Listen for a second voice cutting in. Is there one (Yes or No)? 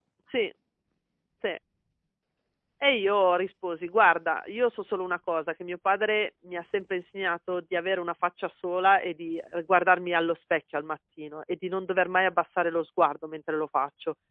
No